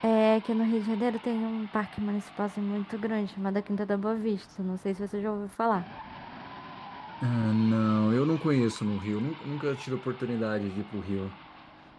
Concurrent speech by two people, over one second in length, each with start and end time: none

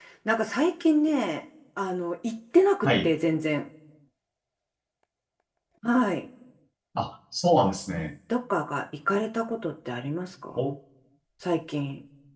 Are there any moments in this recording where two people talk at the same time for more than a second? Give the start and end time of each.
none

